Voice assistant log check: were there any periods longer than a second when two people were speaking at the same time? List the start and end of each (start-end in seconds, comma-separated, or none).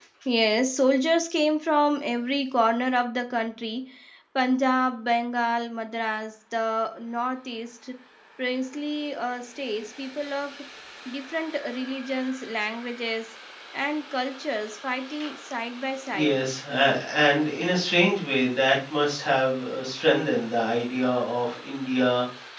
none